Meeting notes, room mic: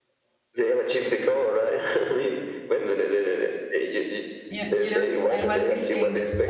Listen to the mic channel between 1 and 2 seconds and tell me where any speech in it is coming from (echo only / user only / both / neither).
echo only